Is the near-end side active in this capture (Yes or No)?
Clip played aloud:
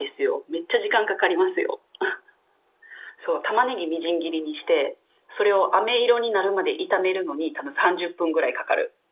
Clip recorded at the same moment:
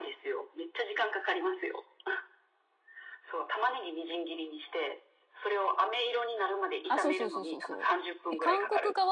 Yes